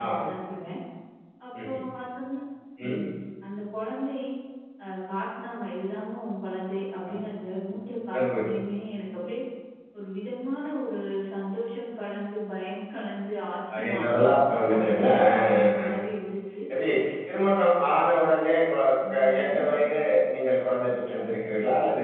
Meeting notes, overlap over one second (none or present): present